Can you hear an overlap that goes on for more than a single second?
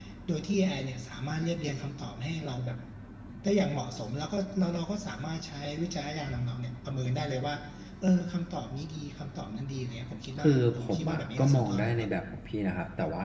Yes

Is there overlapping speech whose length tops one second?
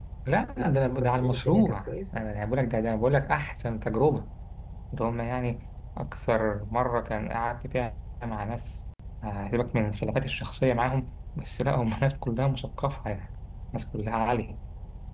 Yes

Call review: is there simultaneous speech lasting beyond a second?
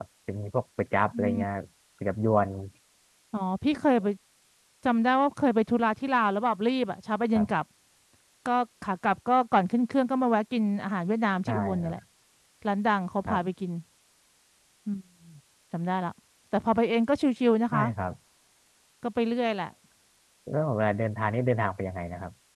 No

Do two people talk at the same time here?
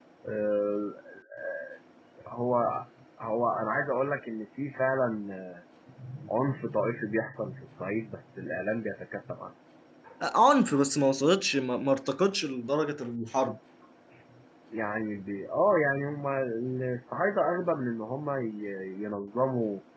No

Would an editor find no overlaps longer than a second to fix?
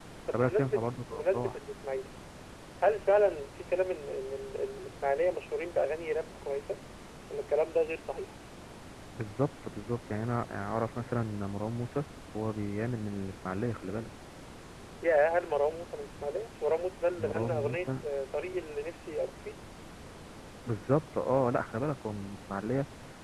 No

